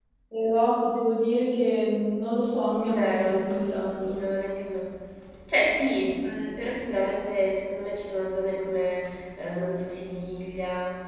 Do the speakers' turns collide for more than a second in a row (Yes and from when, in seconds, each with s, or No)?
Yes, from 2.7 s